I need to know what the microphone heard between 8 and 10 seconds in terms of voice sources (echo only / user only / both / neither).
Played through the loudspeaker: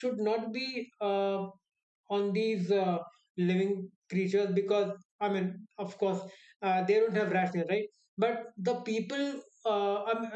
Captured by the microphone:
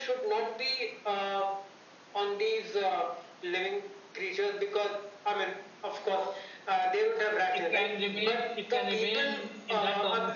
both